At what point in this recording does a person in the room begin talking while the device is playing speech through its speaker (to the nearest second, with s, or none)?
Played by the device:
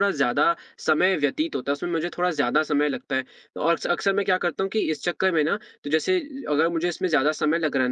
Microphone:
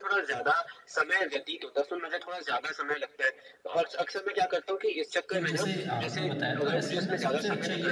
5 s